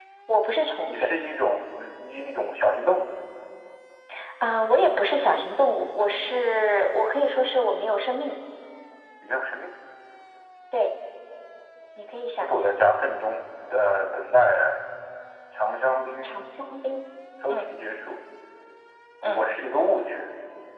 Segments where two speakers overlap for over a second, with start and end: none

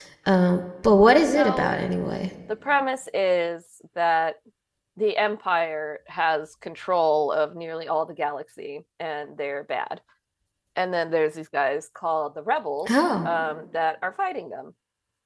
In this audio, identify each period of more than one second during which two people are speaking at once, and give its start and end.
none

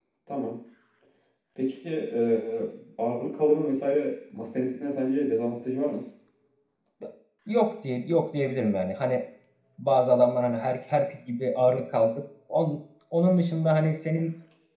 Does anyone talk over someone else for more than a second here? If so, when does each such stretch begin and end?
none

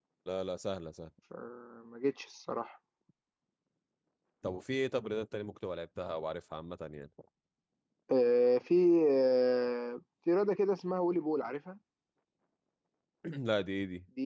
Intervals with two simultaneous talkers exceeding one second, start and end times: none

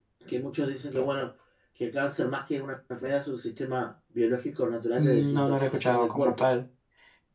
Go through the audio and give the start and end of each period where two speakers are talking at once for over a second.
5.0-6.4

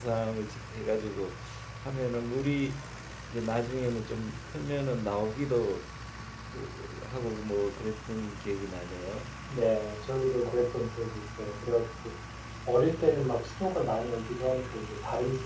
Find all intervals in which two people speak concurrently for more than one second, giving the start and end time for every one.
none

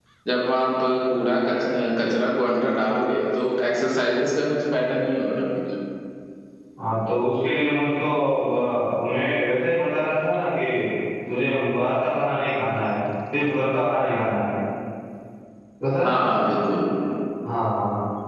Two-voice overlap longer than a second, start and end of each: none

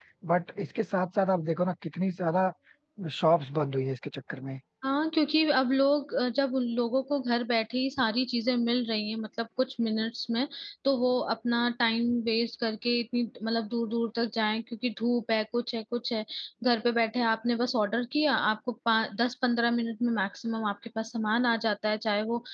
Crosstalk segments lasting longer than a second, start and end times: none

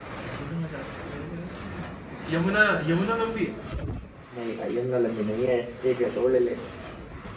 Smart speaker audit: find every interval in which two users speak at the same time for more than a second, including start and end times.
none

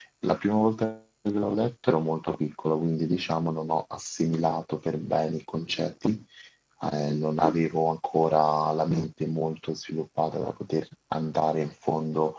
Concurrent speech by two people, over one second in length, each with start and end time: none

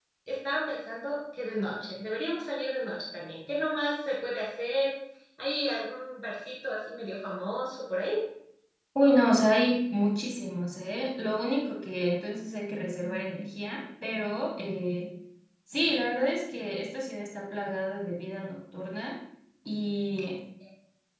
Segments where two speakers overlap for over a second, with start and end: none

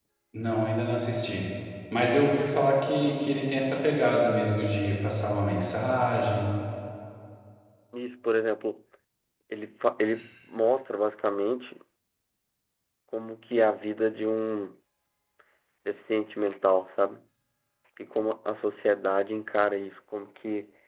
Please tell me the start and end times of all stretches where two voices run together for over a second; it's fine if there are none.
none

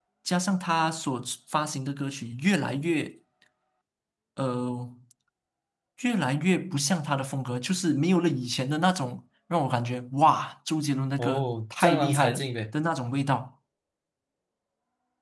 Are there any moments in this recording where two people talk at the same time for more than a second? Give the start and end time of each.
11.2-12.5

